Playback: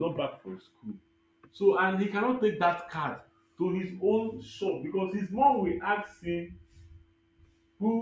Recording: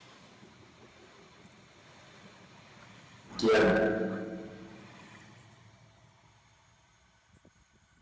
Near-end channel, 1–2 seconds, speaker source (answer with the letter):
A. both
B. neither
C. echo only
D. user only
B